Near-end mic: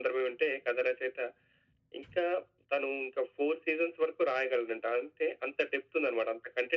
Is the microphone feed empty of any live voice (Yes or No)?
Yes